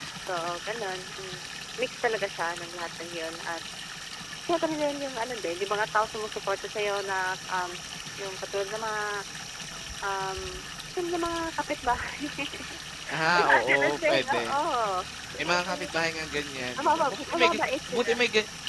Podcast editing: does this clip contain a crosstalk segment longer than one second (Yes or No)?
Yes